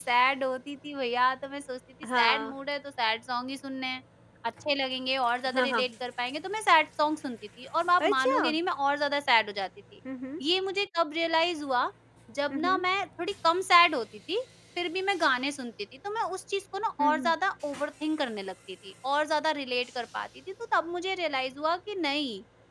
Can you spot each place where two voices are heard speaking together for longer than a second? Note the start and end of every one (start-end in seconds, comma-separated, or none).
none